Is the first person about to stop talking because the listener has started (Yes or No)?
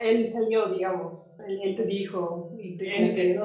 Yes